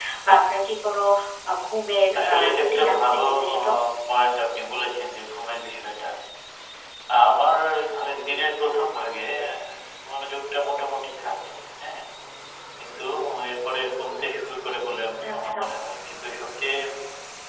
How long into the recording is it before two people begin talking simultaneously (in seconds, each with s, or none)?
2.2 s